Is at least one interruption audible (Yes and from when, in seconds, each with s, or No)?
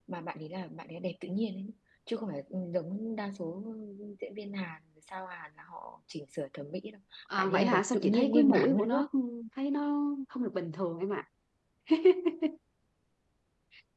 Yes, from 7.4 s